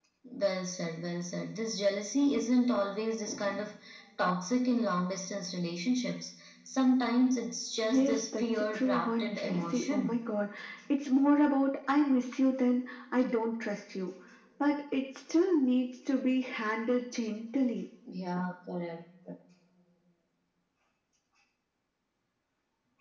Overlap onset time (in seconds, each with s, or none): 7.8 s